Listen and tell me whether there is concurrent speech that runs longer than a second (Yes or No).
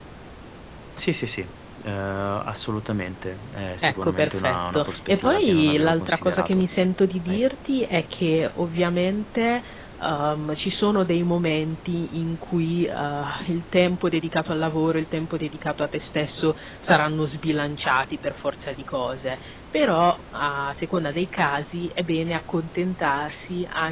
Yes